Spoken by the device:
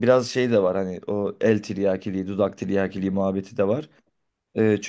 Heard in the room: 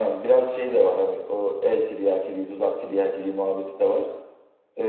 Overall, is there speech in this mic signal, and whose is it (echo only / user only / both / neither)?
echo only